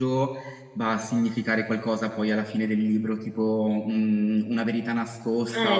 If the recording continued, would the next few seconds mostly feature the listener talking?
Yes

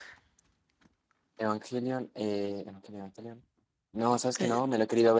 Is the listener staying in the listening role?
Yes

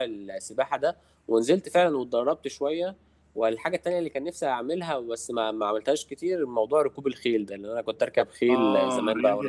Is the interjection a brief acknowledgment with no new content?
No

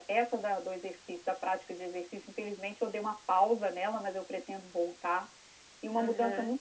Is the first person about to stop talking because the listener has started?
No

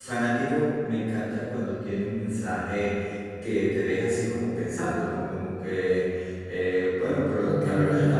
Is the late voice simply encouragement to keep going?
Yes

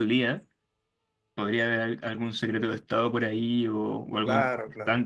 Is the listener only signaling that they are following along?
No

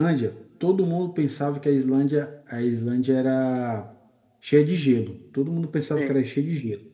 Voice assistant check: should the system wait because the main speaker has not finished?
Yes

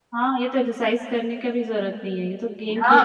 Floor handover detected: Yes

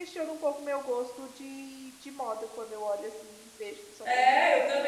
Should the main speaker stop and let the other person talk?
Yes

